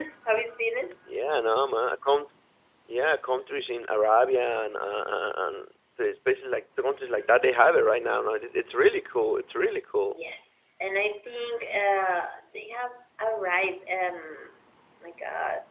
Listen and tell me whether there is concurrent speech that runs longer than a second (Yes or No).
No